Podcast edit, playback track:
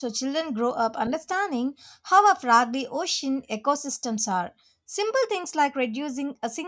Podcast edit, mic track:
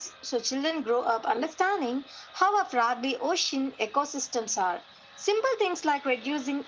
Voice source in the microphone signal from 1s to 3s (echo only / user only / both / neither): echo only